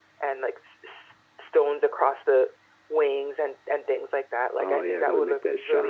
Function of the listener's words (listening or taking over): taking over